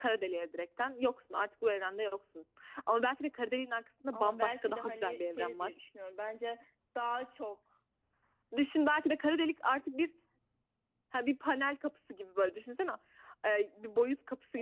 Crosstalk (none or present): present